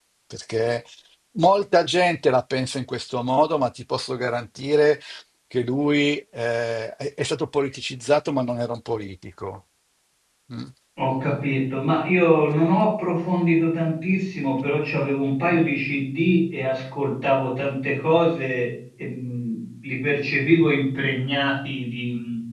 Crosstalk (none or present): none